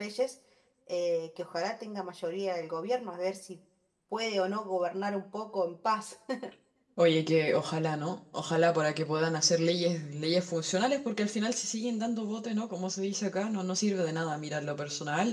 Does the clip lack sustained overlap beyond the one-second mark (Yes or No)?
Yes